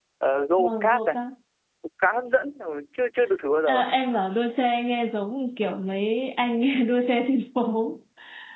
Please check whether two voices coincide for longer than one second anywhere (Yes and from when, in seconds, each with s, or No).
No